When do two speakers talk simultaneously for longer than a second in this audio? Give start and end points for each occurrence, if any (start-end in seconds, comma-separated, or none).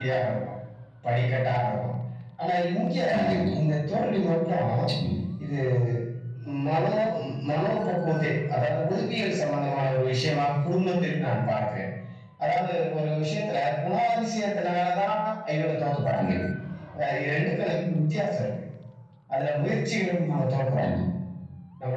none